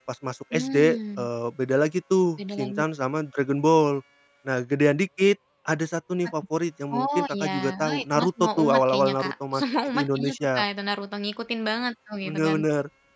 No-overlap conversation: No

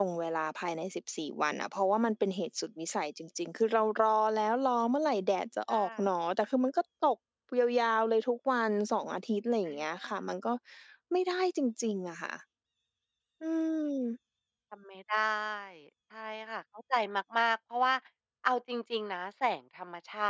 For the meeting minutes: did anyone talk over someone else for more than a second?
No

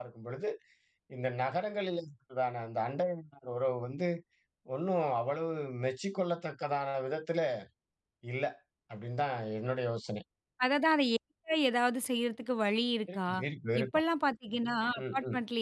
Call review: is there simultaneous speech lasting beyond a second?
No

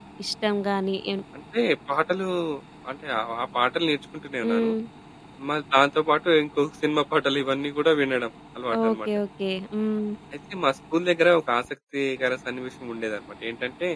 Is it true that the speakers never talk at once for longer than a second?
Yes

